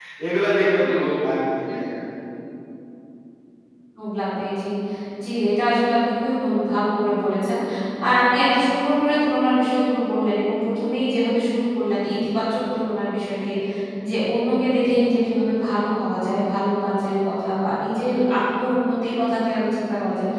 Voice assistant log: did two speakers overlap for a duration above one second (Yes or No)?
No